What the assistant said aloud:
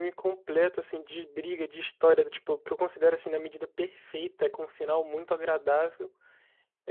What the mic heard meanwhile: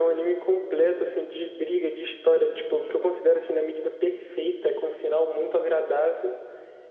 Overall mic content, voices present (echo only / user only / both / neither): echo only